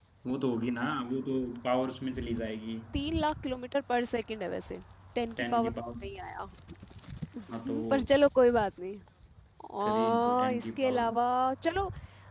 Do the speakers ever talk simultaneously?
Yes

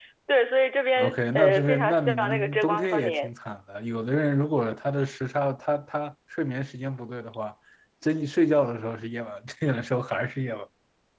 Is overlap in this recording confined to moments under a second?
No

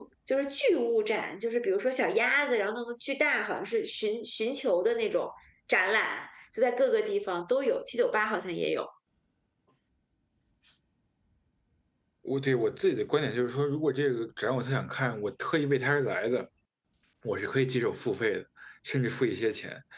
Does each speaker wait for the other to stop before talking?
Yes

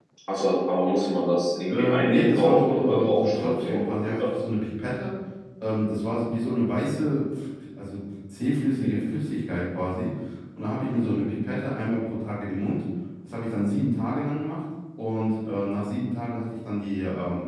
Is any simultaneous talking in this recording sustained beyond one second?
Yes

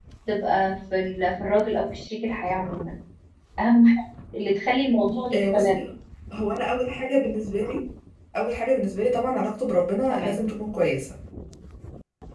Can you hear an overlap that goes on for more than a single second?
No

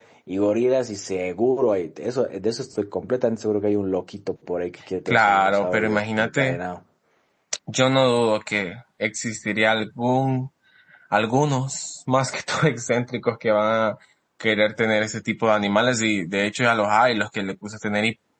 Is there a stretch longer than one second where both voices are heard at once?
Yes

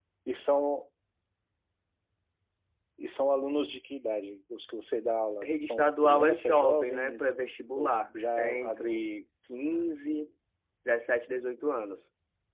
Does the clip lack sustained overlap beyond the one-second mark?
No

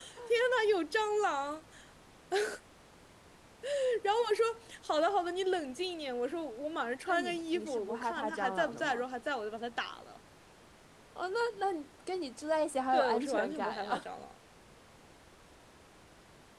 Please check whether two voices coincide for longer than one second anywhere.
Yes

